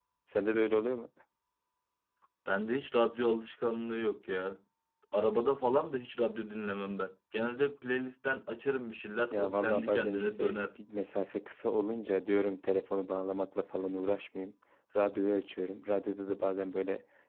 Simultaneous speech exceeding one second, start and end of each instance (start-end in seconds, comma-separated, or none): 9.3-10.6